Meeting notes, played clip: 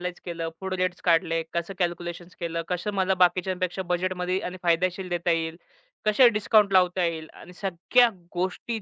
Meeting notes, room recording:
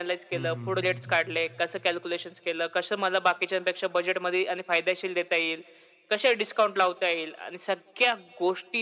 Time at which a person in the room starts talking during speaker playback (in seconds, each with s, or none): 0.3 s